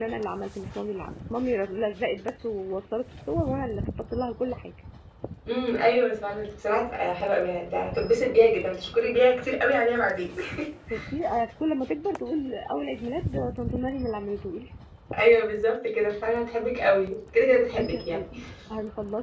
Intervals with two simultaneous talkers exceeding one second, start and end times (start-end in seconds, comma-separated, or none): none